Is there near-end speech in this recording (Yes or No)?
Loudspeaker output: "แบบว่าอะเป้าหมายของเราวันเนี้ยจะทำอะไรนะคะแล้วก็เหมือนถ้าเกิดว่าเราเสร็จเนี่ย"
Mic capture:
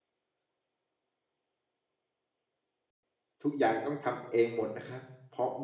Yes